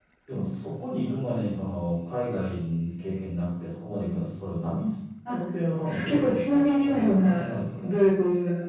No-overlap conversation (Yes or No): No